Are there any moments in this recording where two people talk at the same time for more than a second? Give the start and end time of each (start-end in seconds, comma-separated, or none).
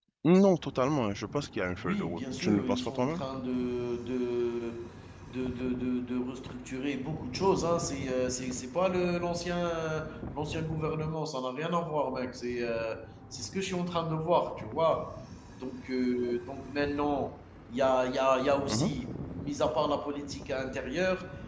1.8-3.2